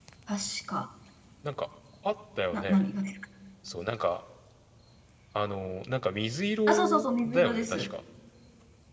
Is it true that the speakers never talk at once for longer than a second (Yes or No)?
No